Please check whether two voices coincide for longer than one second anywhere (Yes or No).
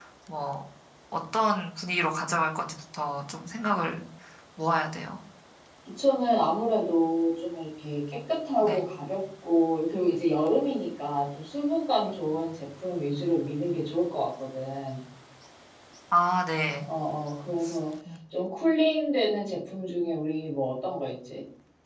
No